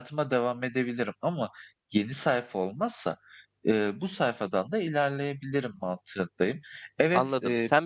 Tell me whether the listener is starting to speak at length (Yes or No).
Yes